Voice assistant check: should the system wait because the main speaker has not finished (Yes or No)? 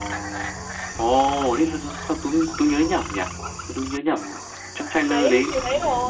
No